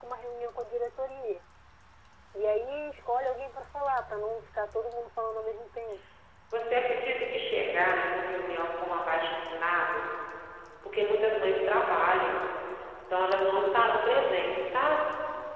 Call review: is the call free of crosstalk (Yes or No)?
Yes